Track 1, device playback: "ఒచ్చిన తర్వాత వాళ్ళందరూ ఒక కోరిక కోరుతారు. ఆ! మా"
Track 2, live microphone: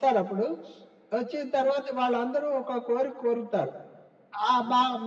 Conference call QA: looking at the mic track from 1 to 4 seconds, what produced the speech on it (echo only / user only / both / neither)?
echo only